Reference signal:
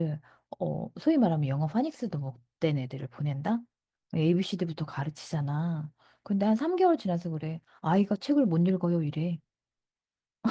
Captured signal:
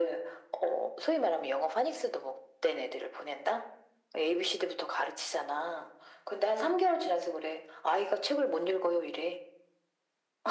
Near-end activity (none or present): none